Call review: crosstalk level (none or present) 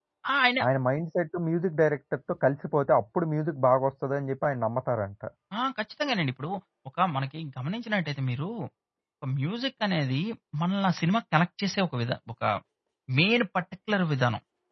none